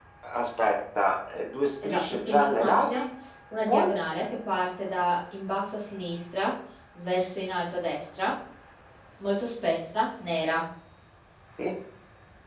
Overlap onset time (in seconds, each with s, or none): 1.8 s